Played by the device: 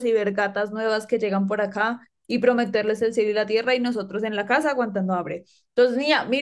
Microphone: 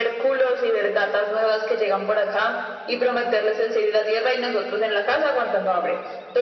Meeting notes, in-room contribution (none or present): none